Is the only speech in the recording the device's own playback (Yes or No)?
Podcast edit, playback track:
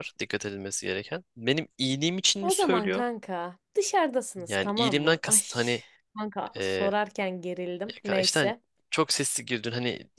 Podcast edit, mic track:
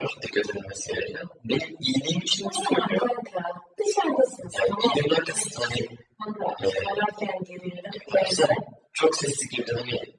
Yes